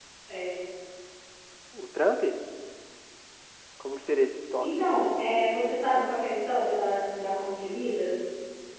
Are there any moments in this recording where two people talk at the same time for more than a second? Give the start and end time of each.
4.6-6.2

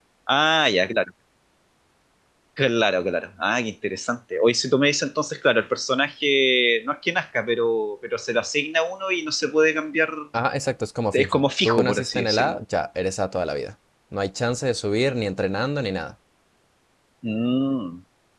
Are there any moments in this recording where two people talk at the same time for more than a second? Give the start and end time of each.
11.1-12.6

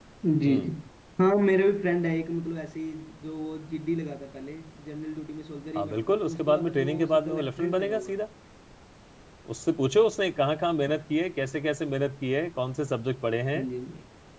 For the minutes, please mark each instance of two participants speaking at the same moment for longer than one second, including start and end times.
5.8-8.2

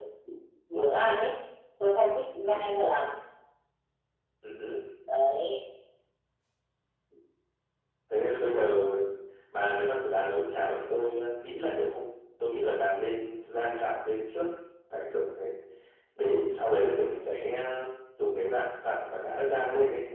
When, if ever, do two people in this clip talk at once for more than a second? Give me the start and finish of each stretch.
none

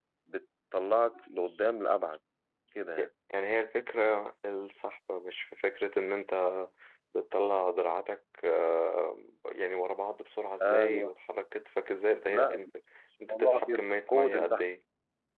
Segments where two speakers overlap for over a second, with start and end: 13.2-14.6

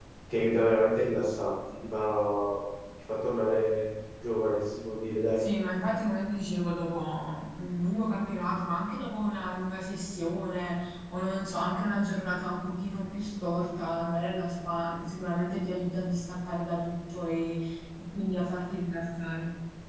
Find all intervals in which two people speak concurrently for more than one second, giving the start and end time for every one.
none

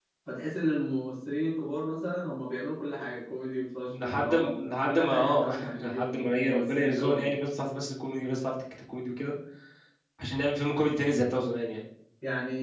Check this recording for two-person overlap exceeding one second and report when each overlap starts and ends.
3.9-7.4

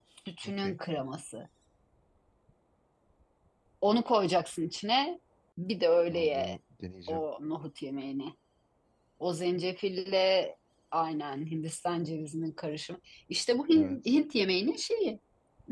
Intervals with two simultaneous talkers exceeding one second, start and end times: none

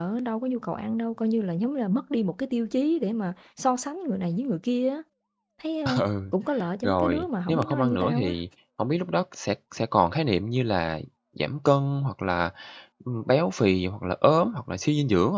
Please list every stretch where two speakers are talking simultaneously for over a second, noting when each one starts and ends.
6.8-8.3

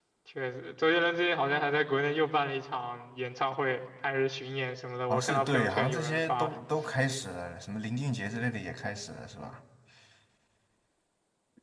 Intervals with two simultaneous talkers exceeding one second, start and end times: 5.1-6.5

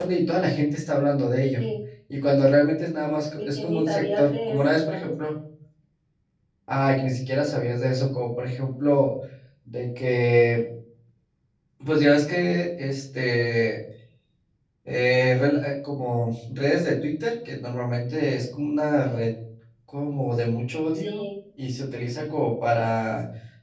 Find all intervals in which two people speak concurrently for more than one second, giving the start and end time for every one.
3.3-5.1

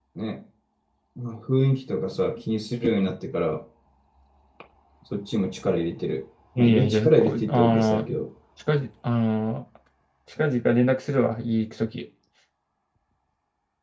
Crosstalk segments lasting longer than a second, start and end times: 6.6-8.1

